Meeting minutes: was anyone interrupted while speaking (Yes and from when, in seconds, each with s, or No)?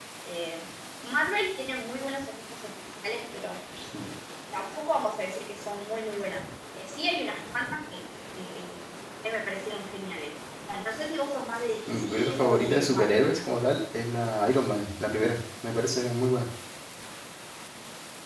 Yes, from 11.9 s